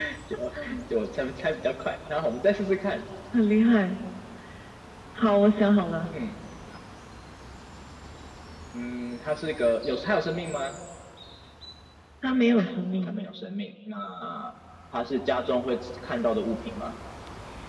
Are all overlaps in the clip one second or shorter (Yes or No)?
Yes